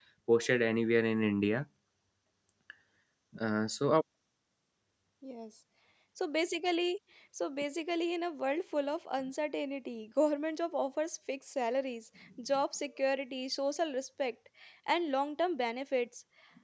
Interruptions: none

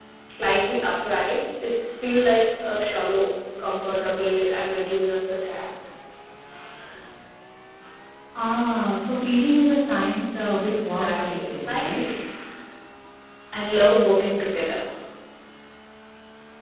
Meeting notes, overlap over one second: present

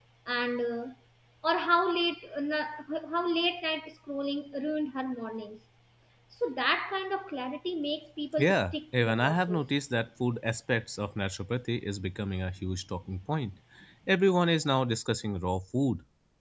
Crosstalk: present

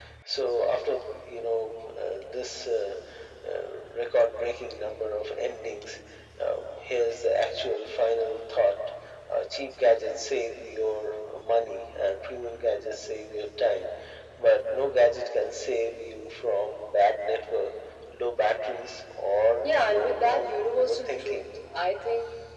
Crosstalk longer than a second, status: present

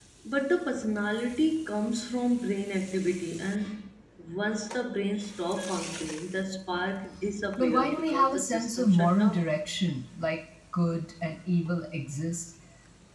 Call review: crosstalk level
present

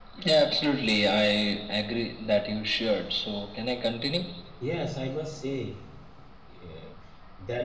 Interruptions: none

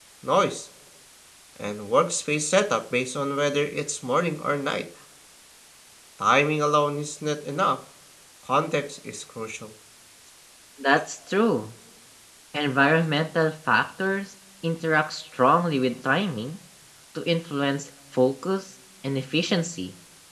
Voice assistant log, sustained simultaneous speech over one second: none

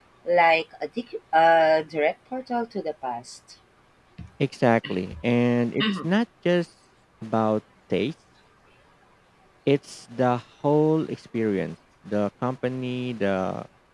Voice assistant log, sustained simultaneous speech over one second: none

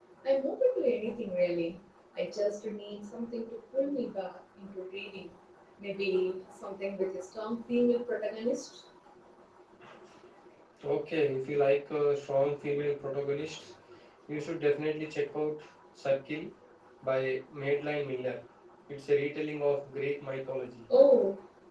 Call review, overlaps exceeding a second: none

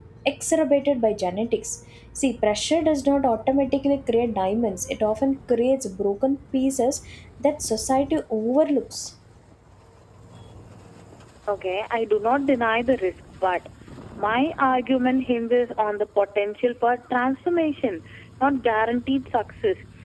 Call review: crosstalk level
none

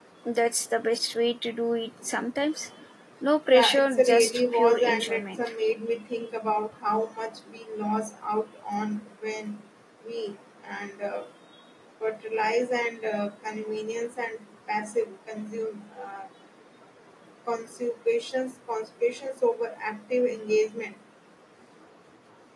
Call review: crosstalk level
present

